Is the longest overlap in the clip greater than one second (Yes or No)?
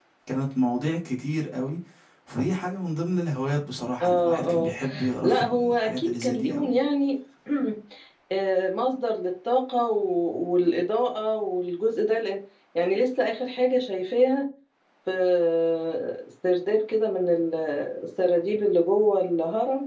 Yes